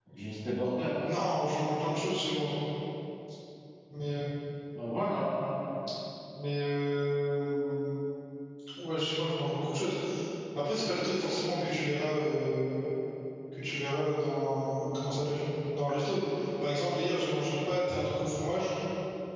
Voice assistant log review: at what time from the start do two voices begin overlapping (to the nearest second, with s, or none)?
none